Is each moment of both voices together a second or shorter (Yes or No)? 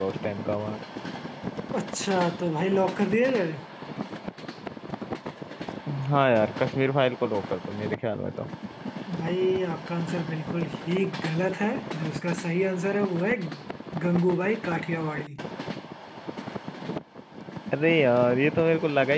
Yes